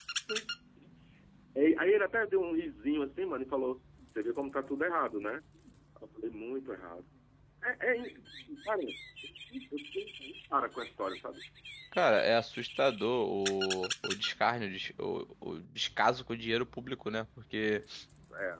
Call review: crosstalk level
none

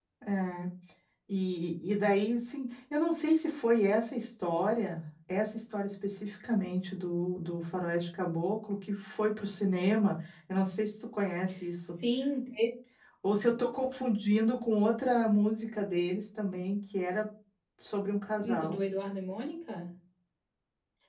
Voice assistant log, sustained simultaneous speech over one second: none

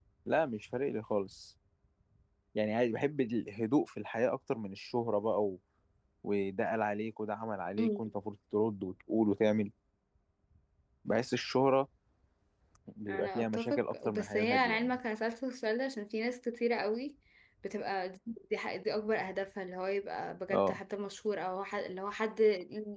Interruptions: present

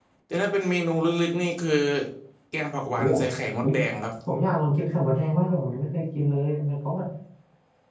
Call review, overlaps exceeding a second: none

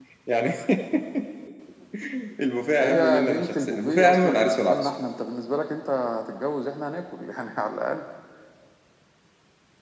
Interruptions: present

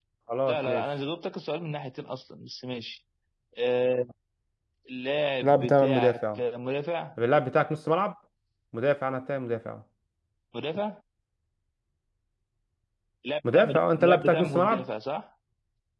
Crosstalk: present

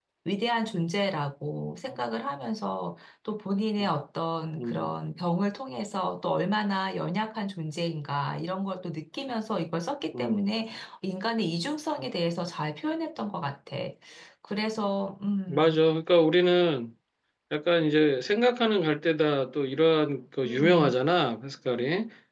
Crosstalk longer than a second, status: none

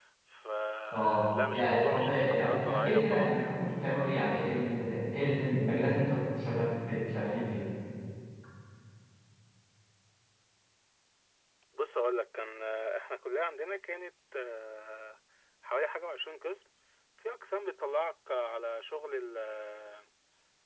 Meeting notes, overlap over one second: present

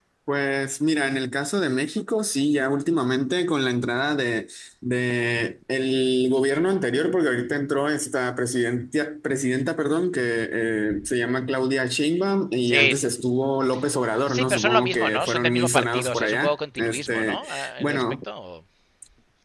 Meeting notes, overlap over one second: present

